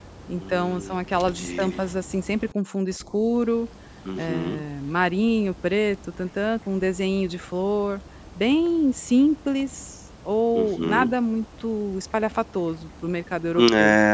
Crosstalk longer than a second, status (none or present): present